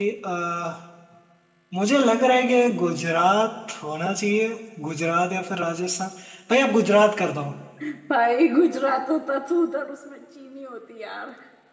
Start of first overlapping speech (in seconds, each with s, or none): none